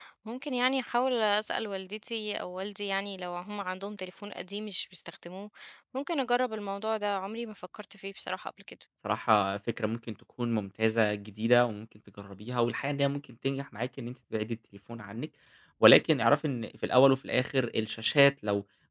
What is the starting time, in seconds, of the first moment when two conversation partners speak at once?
none

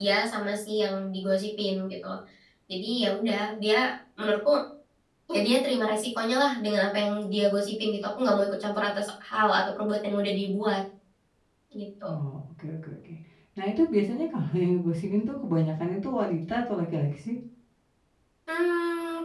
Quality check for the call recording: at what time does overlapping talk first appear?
none

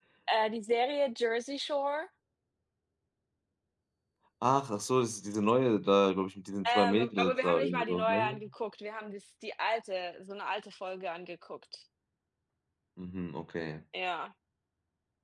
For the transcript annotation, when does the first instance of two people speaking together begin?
6.6 s

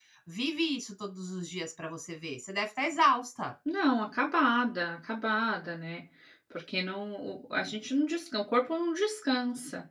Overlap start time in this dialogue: none

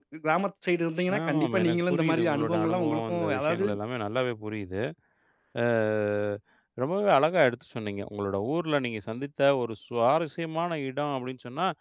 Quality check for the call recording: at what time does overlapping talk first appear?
1.2 s

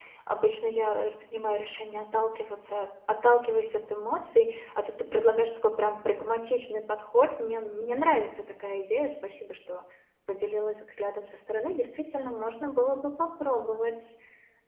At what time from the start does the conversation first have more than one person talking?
none

